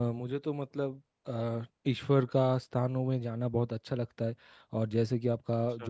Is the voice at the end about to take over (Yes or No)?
No